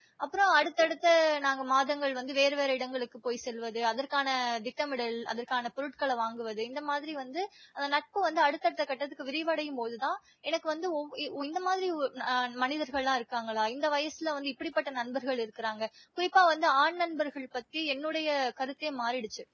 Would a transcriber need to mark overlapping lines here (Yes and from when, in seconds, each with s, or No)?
No